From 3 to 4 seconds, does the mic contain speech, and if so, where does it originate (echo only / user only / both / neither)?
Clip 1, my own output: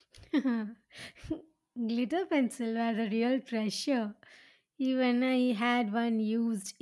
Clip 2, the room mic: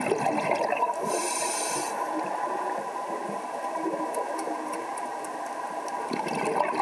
neither